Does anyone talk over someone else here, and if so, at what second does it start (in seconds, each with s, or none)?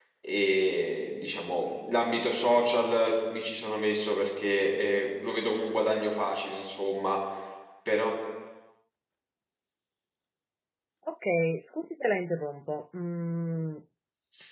none